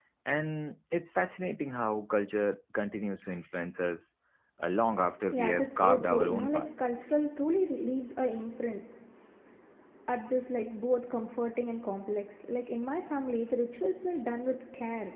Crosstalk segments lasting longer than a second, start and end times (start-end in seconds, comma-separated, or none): 5.3-6.7